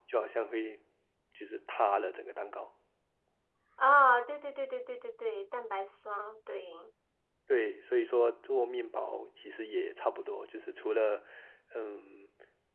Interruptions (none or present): none